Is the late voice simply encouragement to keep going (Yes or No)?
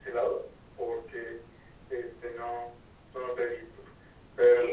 No